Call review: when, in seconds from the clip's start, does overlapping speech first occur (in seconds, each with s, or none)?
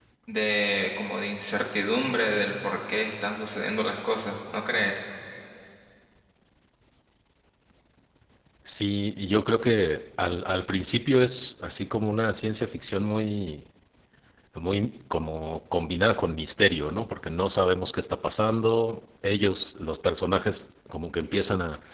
none